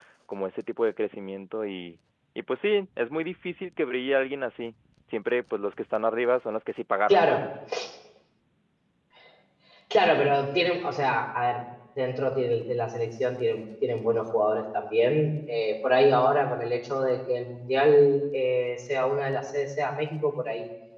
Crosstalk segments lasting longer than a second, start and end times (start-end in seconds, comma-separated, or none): none